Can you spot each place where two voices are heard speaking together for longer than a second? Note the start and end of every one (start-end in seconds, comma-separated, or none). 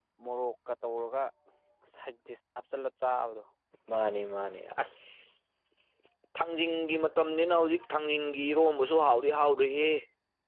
none